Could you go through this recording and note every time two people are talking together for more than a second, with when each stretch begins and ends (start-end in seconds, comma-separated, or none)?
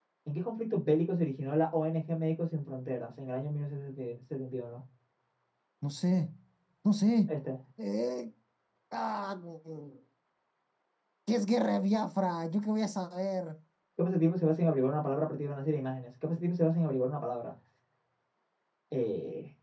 none